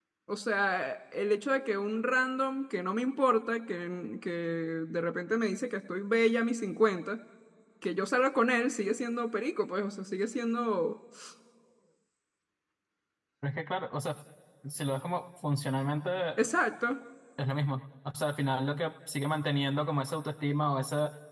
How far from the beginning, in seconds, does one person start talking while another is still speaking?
none

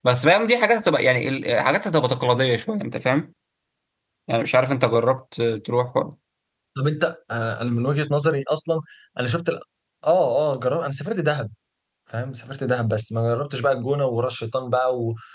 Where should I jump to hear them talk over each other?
none

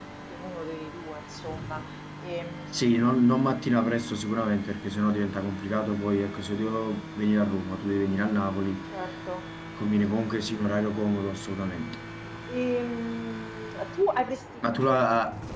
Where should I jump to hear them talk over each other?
none

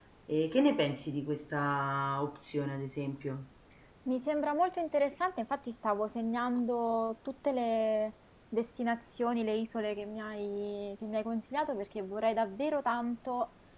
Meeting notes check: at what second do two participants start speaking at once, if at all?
none

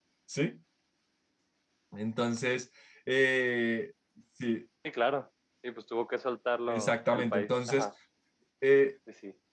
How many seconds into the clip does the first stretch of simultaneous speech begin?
7 s

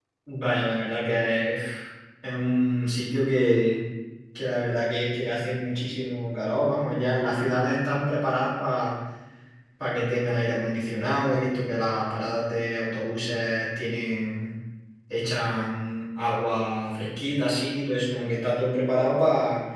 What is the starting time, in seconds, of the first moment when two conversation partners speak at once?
none

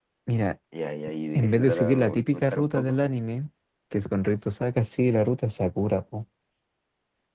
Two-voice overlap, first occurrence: 1 s

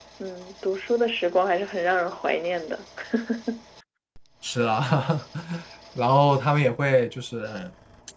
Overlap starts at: none

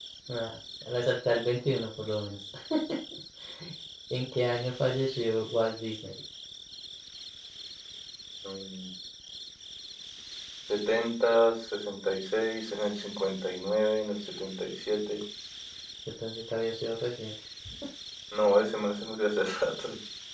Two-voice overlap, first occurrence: none

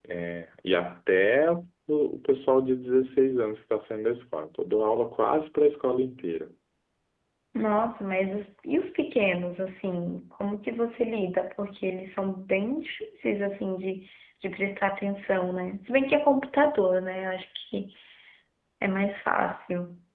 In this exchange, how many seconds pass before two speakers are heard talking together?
none

